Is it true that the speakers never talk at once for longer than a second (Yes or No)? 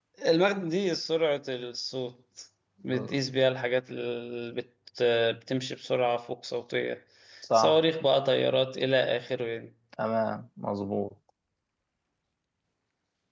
Yes